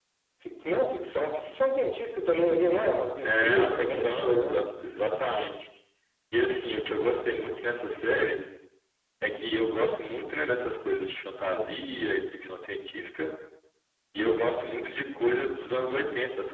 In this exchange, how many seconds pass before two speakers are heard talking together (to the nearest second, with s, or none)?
3 s